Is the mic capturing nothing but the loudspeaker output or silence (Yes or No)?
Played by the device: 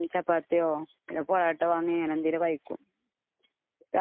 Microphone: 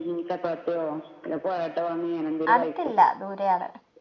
No